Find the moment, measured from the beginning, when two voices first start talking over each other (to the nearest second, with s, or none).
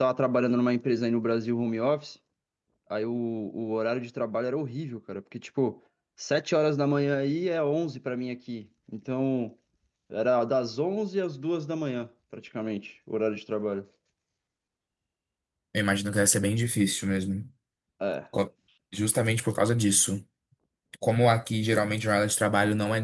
none